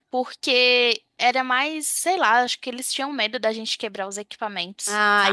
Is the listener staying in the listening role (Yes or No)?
No